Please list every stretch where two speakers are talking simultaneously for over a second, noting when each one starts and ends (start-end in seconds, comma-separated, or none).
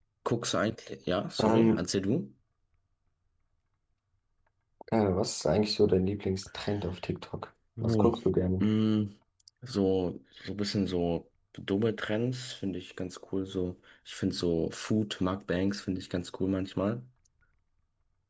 none